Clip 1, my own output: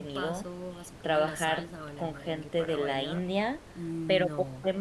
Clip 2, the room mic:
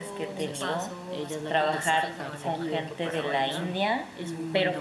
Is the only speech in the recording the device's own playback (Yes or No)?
No